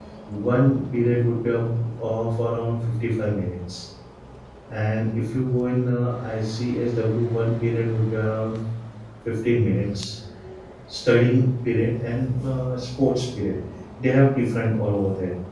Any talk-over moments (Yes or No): No